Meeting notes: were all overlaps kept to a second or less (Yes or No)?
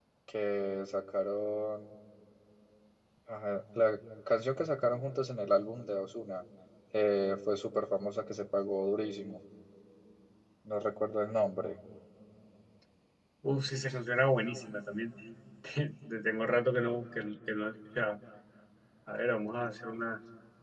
Yes